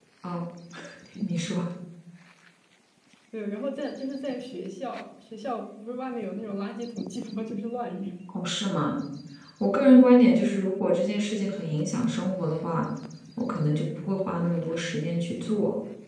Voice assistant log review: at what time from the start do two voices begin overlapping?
none

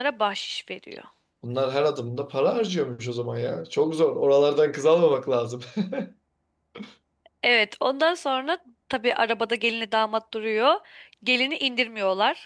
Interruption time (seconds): none

